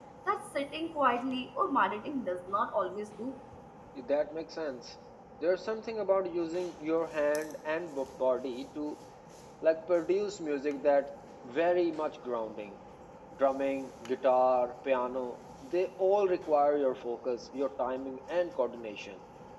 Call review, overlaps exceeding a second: none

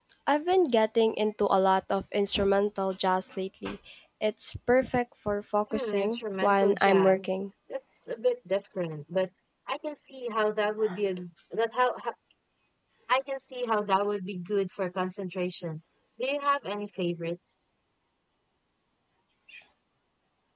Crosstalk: present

